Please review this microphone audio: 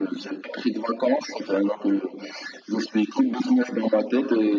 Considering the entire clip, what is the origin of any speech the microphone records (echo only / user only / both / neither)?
echo only